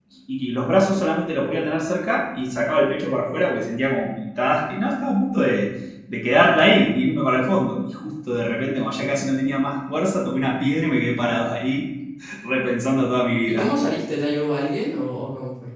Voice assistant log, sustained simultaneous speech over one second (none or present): none